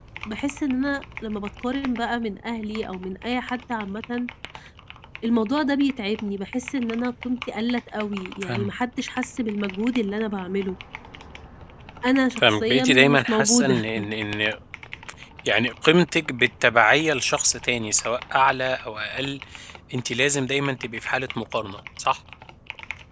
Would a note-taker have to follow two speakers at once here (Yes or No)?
Yes